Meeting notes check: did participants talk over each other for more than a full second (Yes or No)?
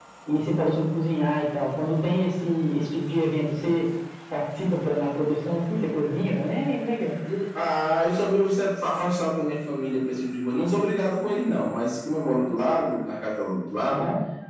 No